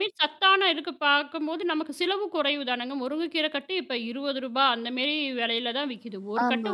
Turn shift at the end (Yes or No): No